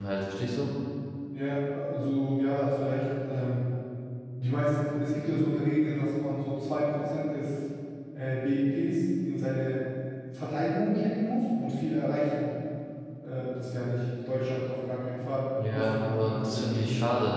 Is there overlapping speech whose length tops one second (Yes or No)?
Yes